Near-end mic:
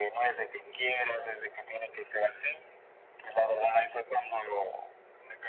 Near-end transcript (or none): none